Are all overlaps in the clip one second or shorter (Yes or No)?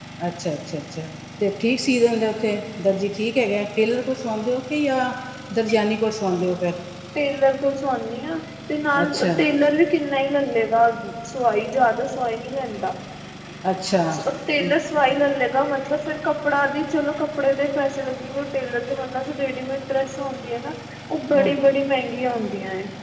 Yes